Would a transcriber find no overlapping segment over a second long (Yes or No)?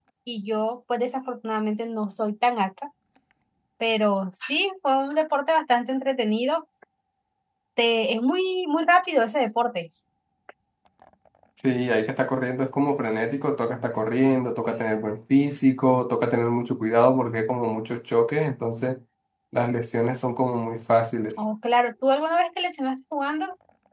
Yes